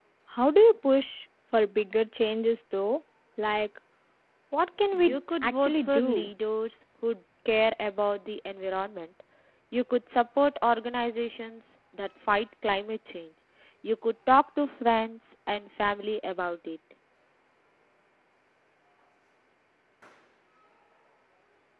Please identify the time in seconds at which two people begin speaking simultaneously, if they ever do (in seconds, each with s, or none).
5.0 s